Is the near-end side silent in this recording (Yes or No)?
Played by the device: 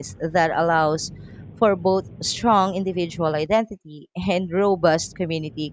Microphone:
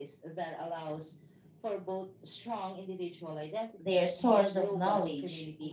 No